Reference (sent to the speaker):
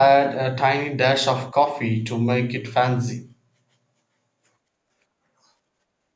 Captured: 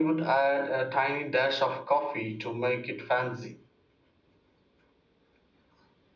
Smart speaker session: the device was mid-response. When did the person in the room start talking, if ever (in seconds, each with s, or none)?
none